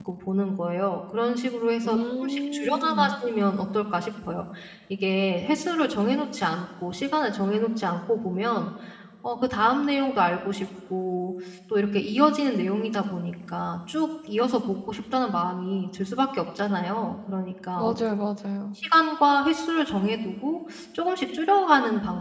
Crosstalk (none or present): present